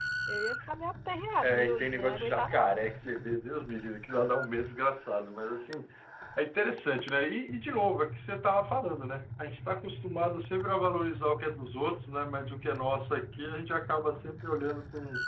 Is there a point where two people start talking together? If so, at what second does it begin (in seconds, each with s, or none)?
1.4 s